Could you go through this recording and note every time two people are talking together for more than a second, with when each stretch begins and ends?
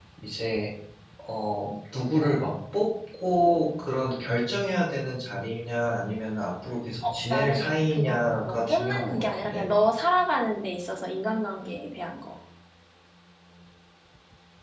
7.1-9.7

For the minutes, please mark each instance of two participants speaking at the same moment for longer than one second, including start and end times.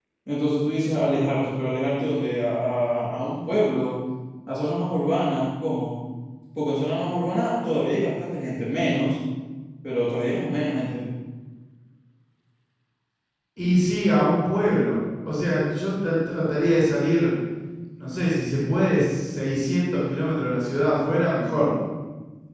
none

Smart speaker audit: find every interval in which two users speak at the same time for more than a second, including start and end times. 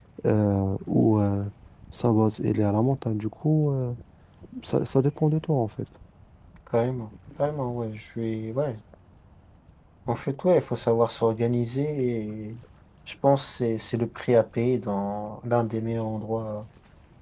none

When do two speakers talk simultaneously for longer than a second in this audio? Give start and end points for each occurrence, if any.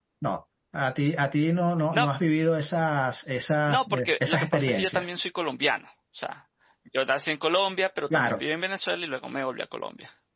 3.7-5.1

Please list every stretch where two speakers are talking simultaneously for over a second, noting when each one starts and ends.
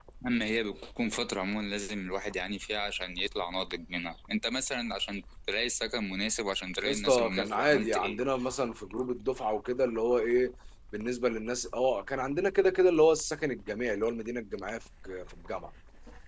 6.8-8.2

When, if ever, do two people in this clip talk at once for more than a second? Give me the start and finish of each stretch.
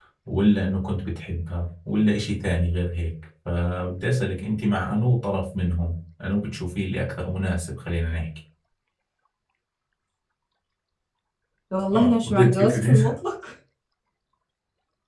11.9-13.1

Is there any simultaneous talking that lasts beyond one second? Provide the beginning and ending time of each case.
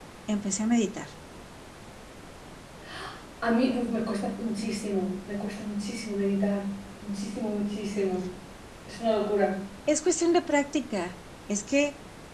none

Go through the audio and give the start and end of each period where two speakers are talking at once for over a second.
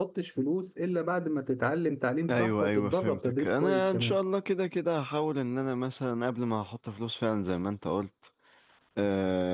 2.3-4.2

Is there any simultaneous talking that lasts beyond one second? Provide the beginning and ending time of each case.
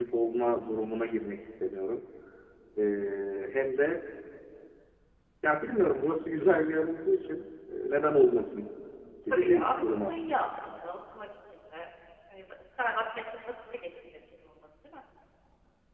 9.3-10.5

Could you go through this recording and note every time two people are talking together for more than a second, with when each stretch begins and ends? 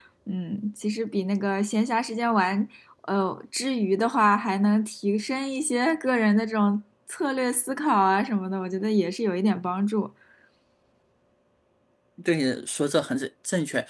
none

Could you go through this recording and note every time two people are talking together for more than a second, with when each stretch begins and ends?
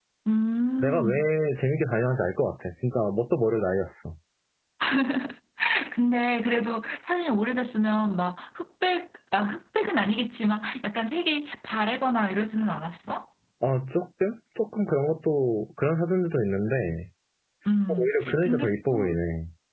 17.9-19.1

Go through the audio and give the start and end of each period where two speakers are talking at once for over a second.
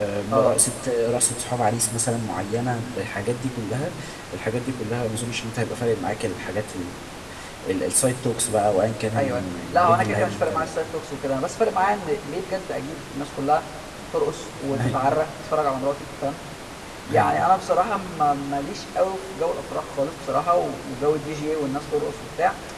9.2-10.7

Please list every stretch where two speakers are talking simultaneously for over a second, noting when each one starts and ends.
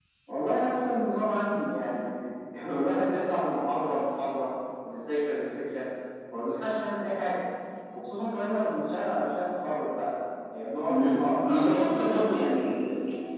10.9-12.6

